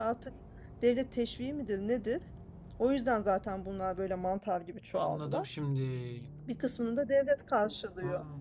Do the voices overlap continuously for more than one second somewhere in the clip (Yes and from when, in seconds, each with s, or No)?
No